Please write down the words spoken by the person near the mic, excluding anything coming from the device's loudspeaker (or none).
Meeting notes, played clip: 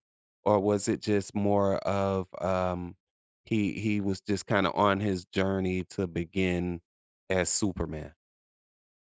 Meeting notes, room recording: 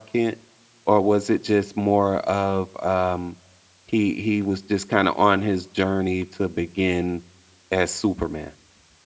none